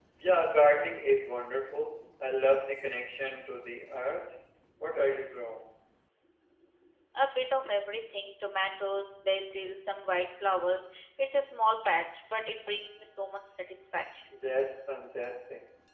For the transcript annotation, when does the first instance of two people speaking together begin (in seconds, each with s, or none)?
none